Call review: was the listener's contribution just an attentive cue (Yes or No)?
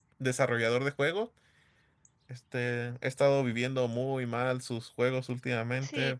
No